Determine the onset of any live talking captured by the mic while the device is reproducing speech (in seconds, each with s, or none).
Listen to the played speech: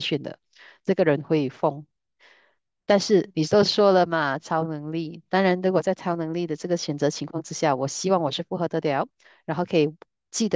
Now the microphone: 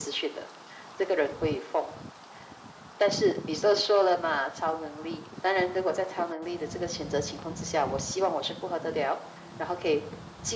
none